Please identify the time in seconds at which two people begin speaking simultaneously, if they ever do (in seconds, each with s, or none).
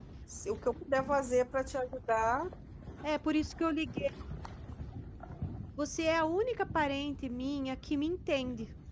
none